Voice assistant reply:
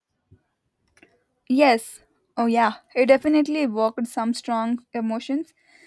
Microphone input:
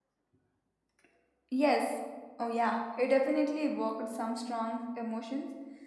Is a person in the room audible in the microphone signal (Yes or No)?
No